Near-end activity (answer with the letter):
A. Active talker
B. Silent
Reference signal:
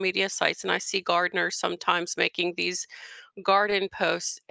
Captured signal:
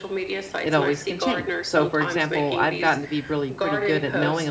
A